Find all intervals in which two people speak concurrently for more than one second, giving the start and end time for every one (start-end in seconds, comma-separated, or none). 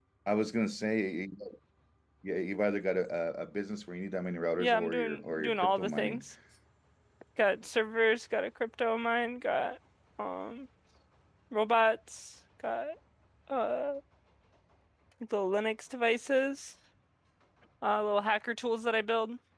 4.6-6.2